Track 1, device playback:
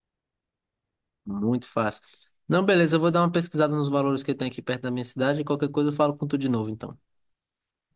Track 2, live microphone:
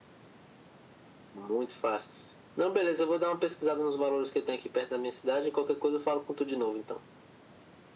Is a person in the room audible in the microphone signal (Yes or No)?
No